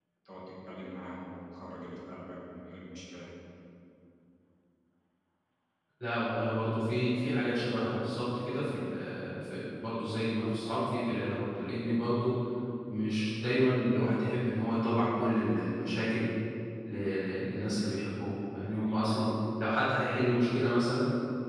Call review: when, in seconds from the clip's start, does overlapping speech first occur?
none

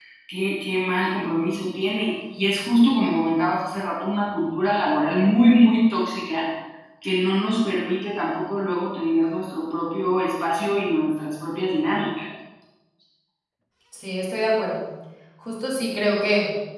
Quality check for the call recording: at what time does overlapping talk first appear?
none

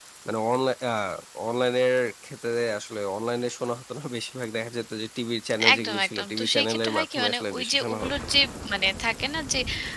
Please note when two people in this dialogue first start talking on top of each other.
5.6 s

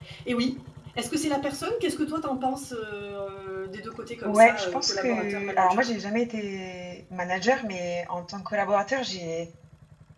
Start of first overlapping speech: 4.2 s

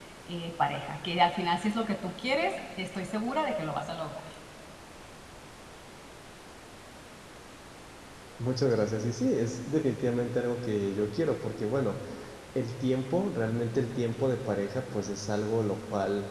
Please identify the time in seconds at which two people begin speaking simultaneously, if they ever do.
none

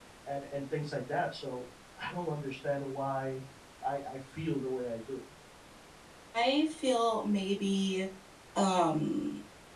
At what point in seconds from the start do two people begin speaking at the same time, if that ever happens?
none

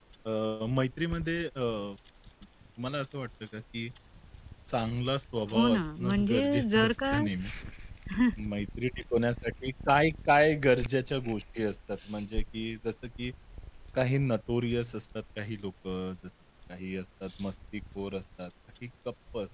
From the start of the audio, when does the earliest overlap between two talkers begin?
5.5 s

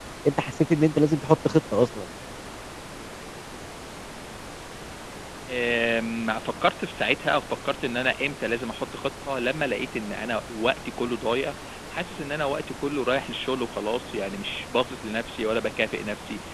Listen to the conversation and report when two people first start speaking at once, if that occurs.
none

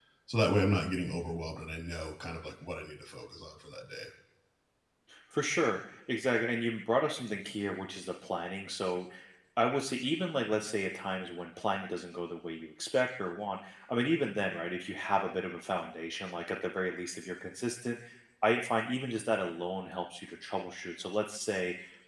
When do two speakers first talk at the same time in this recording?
none

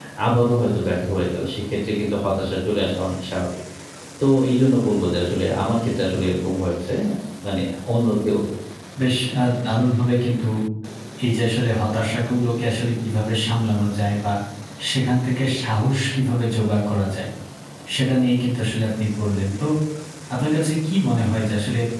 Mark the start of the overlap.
none

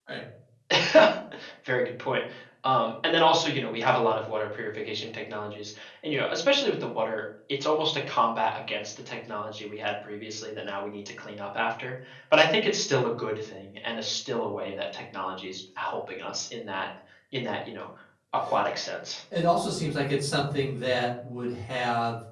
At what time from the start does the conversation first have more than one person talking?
none

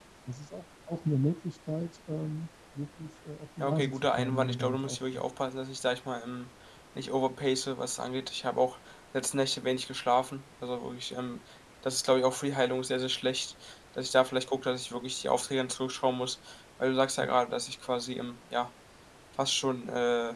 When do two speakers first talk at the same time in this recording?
3.6 s

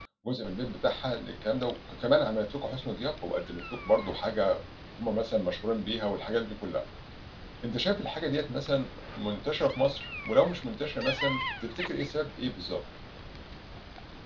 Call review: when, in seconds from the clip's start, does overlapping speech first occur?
none

